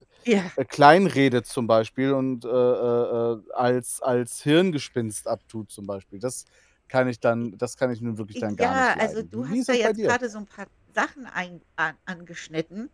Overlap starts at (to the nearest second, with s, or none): 8 s